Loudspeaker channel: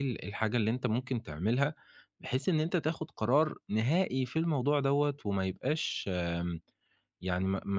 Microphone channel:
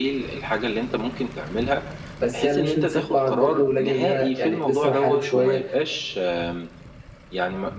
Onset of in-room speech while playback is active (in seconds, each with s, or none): 2.2 s